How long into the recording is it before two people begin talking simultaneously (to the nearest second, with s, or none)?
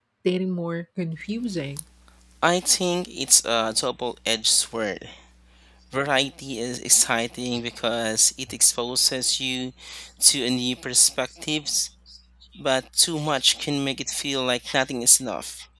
none